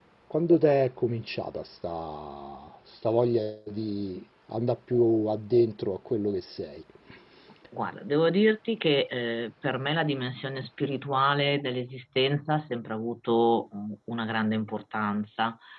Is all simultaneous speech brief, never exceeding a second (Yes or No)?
Yes